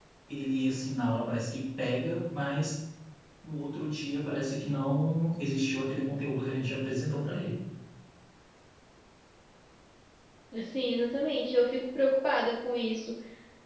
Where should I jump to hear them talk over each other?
none

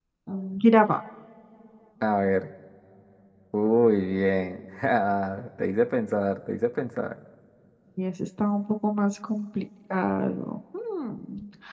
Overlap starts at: none

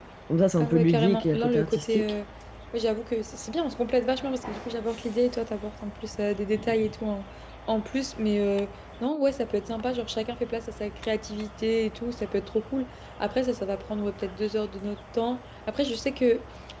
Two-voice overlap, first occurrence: 0.6 s

